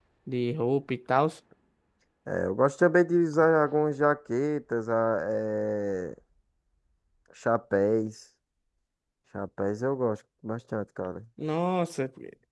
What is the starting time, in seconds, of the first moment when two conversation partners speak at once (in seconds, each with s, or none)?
none